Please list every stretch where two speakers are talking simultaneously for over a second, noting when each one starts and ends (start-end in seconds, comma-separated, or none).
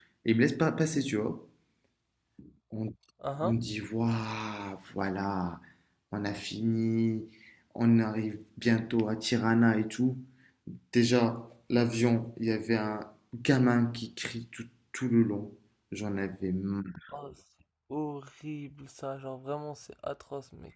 none